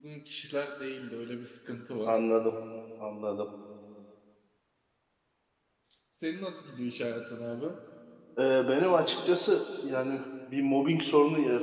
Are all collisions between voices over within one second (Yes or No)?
Yes